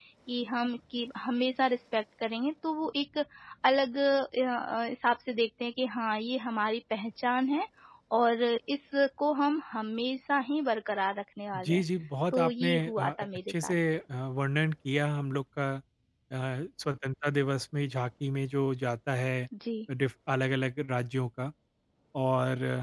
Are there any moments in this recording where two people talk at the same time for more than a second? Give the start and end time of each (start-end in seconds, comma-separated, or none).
12.3-13.7